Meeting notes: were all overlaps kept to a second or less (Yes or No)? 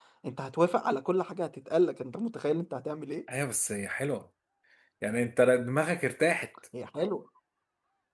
Yes